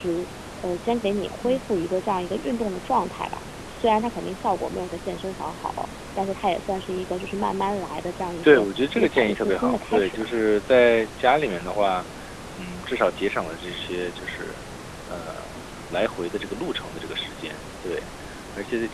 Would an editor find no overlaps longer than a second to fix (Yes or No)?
No